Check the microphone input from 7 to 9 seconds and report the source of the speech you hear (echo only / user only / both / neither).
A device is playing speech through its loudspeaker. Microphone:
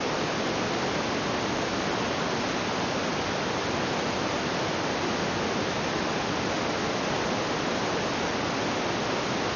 neither